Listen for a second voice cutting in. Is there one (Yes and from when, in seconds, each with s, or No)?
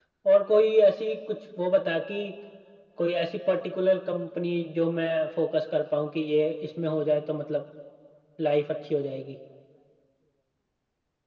No